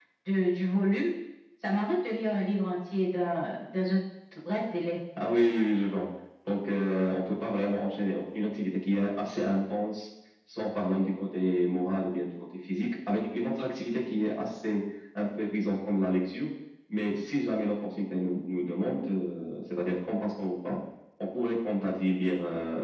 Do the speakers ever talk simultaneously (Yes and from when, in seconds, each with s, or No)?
No